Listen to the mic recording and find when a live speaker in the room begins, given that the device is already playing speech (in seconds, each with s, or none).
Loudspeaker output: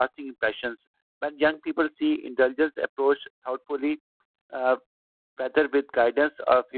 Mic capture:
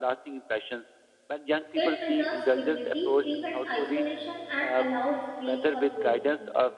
1.7 s